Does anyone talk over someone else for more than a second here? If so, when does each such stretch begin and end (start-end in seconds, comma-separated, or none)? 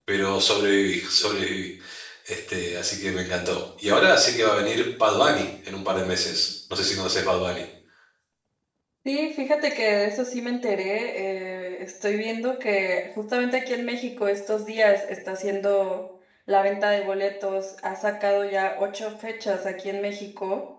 none